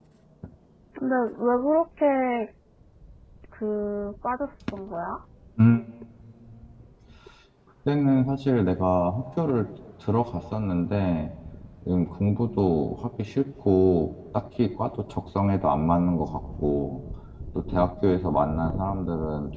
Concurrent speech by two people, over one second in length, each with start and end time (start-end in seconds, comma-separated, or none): none